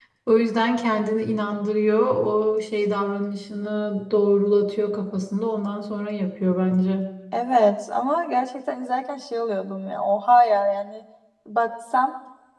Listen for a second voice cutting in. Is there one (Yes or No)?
No